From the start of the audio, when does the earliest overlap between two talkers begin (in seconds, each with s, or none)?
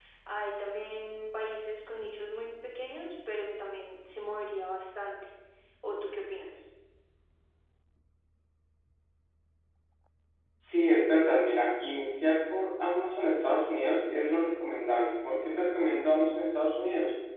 none